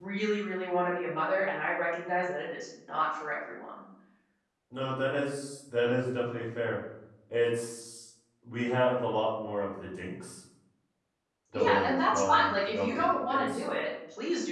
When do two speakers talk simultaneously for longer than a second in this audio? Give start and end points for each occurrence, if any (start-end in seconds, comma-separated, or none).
11.5-12.9